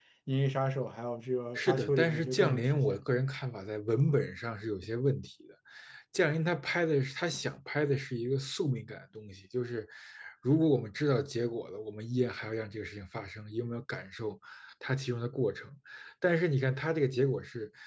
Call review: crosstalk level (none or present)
present